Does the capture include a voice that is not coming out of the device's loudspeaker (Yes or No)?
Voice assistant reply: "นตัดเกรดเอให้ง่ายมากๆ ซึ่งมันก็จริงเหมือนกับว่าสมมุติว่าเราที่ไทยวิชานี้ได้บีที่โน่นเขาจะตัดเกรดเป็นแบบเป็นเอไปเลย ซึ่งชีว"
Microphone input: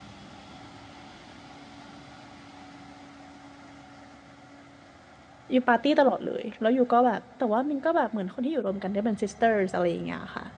Yes